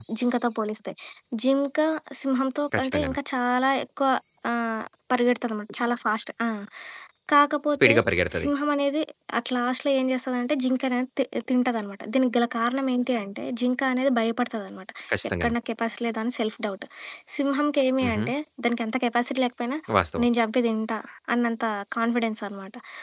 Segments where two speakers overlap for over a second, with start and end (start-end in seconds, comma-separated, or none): none